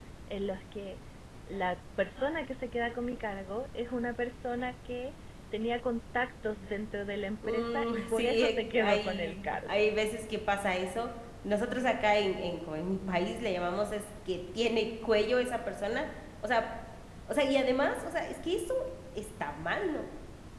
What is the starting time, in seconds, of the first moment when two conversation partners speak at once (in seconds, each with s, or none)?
7.4 s